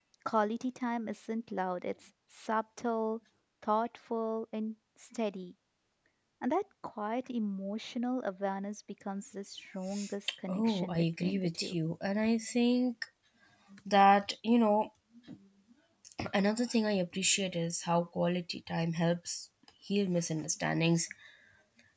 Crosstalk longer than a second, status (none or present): present